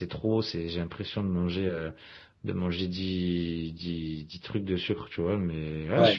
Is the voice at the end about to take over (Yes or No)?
No